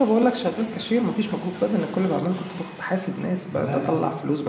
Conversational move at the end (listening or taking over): listening